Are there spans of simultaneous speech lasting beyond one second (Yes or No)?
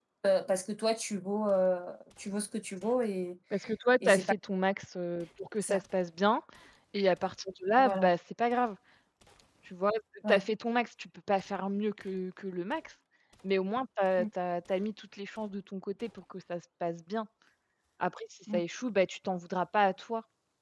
No